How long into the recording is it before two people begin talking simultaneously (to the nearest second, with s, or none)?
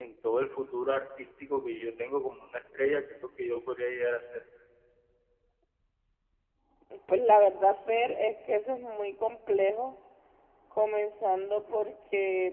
none